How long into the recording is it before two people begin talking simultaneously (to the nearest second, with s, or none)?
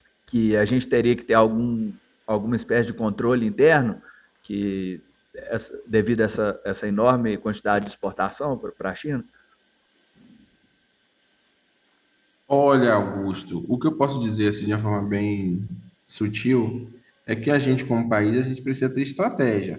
none